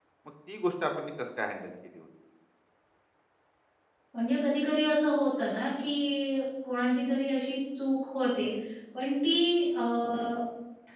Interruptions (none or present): none